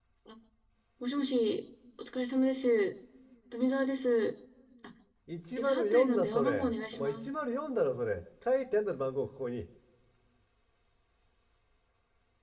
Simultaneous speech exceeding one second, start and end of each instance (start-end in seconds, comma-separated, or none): 5.6-7.2